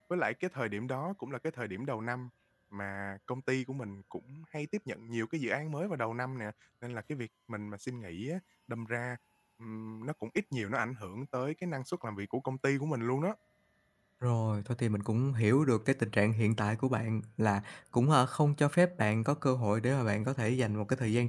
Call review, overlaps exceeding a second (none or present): none